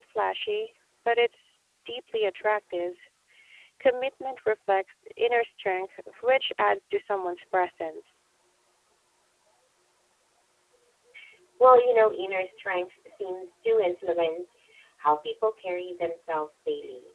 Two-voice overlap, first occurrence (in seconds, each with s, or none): none